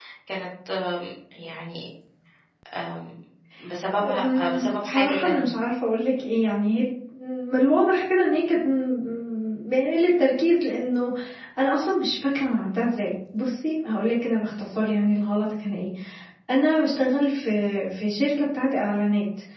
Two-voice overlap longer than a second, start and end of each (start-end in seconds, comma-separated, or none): 4.0-5.5